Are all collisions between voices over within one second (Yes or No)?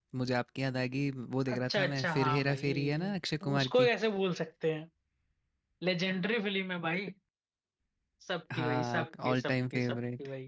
No